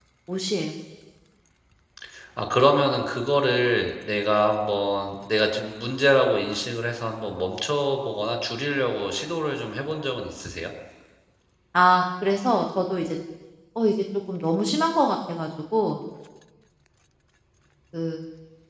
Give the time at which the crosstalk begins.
none

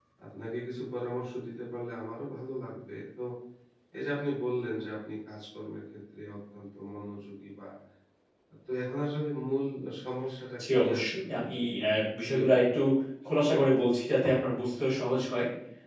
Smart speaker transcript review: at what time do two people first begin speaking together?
10.6 s

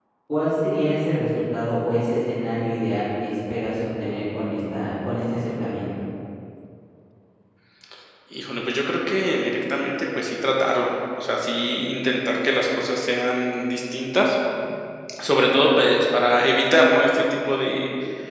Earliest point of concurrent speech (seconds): none

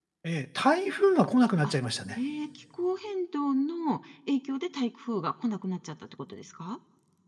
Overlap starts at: none

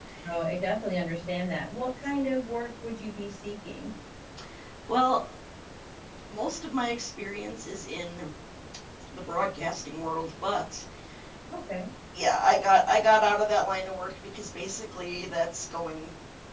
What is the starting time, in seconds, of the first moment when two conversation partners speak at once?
none

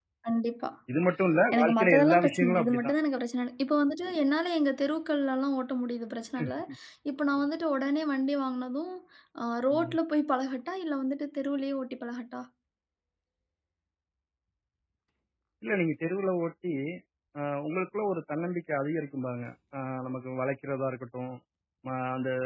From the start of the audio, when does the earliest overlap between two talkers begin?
1.5 s

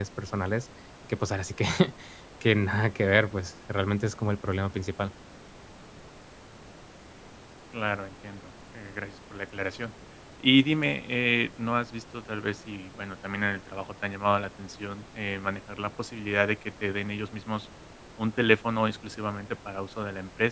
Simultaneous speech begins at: none

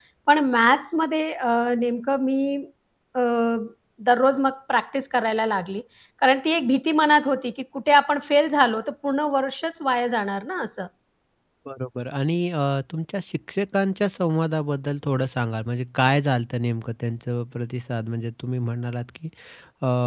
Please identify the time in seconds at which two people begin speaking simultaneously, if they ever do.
none

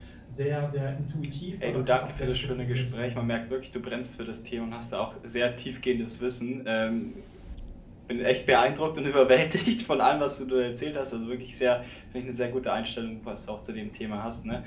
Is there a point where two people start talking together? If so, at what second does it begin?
1.6 s

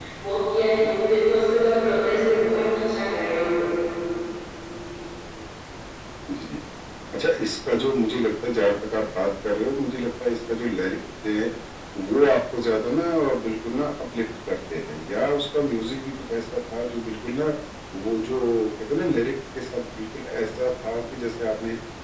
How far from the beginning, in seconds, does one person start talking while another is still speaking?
none

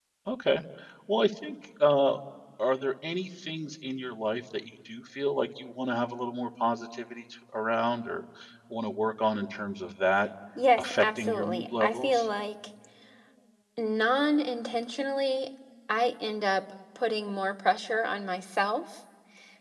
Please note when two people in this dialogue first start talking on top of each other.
10.8 s

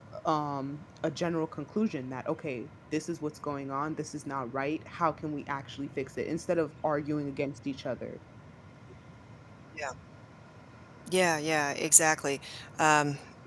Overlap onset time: none

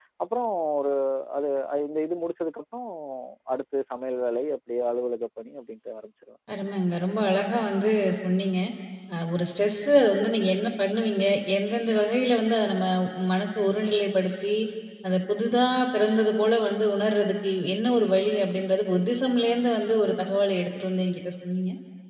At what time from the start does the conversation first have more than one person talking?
none

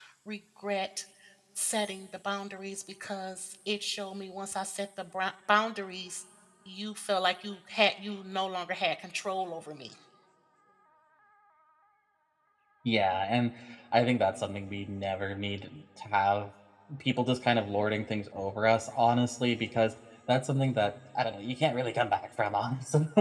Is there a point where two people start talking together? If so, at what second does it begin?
none

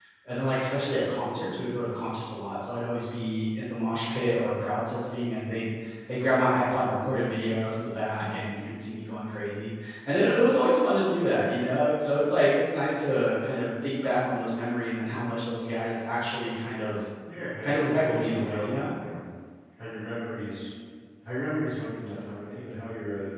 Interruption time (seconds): 17.6 s

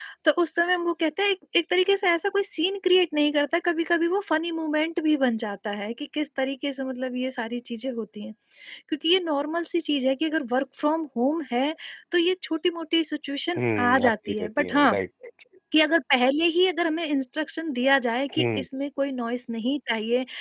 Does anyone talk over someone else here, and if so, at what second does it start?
13.6 s

